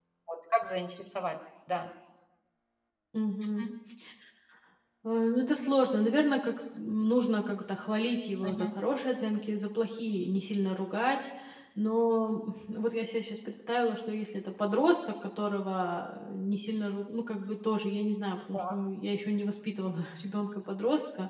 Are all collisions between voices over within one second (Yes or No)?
Yes